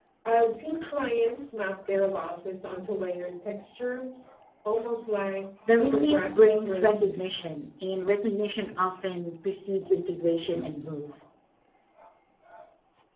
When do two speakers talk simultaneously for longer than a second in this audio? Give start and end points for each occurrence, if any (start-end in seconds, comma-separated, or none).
5.7-7.2